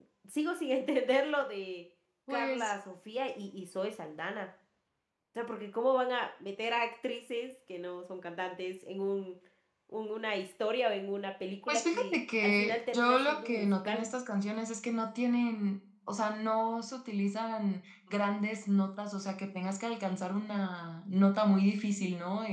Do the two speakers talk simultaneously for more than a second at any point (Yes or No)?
Yes